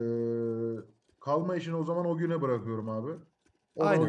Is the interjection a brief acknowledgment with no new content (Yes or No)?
No